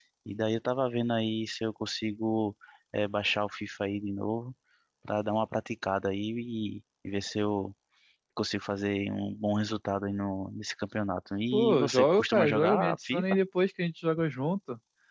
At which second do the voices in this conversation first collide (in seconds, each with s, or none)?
11.5 s